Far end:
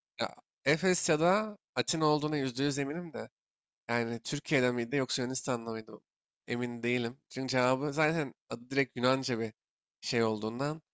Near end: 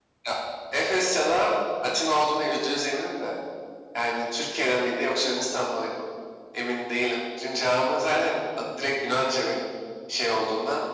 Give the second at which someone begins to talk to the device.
none

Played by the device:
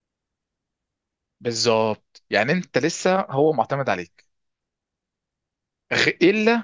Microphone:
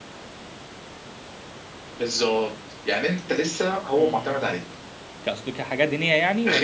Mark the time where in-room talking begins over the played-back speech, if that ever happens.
4.0 s

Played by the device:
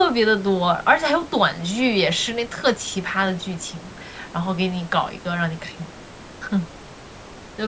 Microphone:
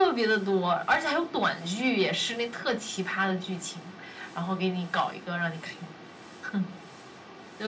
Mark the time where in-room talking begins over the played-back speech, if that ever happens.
none

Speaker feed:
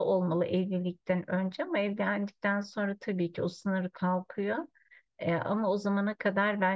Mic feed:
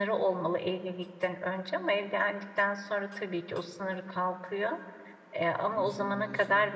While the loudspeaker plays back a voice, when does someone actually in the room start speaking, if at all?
5.7 s

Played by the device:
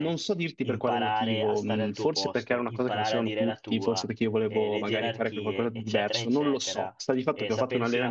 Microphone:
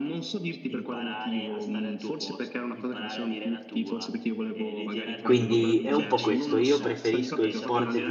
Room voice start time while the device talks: 5.2 s

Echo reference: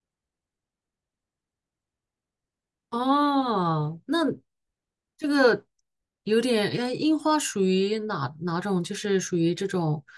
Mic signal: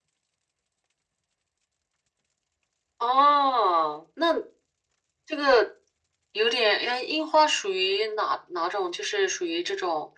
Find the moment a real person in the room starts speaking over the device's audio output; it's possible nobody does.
none

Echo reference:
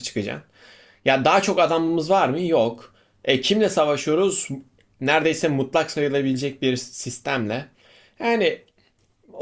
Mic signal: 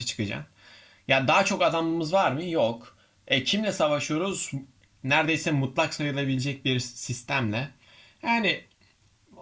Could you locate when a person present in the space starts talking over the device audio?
none

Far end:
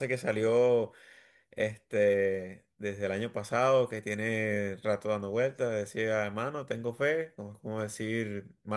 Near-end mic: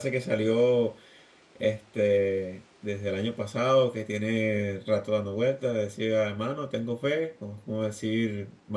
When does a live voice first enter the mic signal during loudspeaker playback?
none

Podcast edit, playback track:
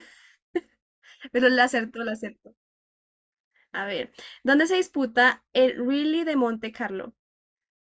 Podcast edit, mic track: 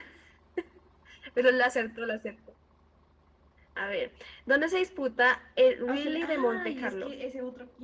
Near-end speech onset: 5.9 s

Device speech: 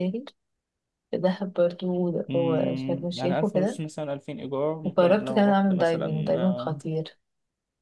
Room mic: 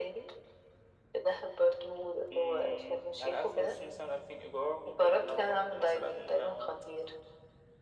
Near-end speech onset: none

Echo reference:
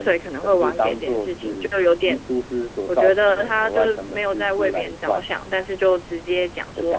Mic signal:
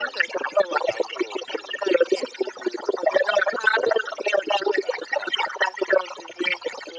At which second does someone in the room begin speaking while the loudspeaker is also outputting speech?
none

